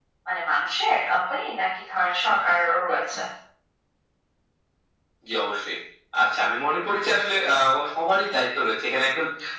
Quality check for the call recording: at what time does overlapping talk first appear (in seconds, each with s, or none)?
none